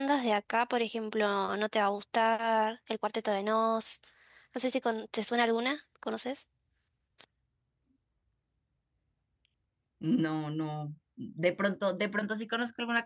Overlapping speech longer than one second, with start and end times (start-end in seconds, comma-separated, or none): none